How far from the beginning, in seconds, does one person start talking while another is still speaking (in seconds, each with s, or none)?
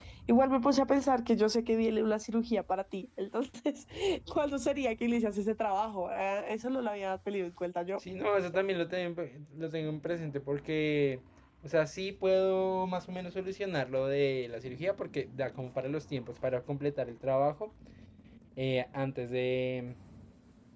none